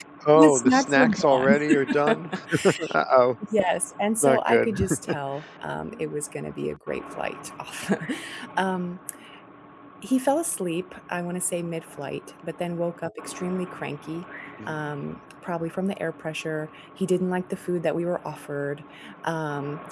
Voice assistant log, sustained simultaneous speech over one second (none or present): present